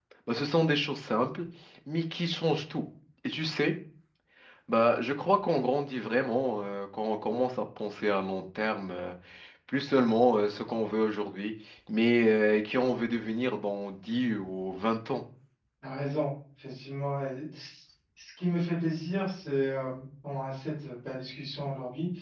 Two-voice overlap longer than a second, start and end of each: none

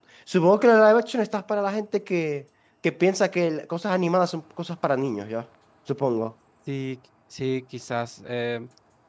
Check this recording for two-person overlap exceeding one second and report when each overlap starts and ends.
none

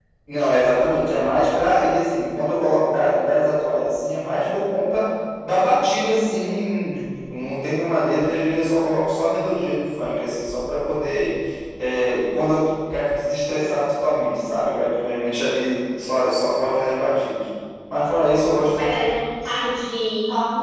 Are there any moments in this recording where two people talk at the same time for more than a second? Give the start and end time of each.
none

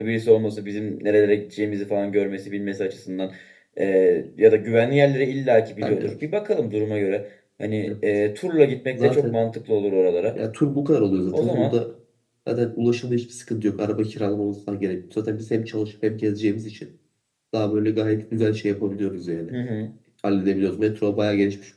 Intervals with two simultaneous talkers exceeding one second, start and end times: none

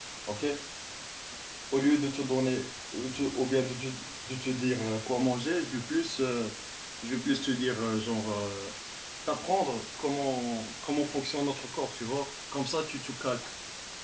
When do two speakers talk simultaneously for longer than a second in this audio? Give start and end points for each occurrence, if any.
none

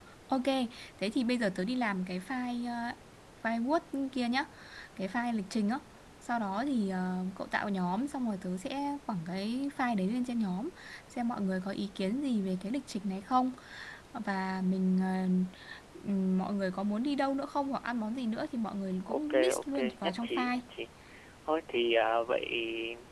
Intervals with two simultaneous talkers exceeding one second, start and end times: 19.1-20.6

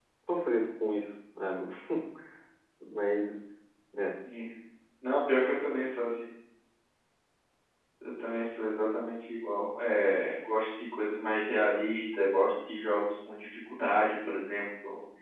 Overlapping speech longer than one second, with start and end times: none

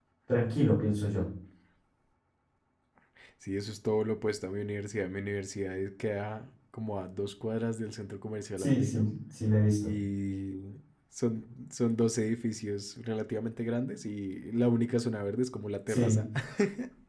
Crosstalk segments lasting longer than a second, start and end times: none

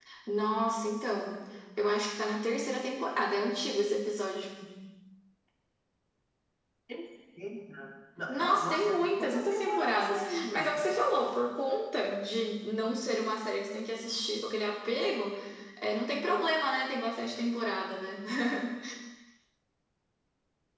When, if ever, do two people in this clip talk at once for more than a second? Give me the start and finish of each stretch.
8.3-10.8

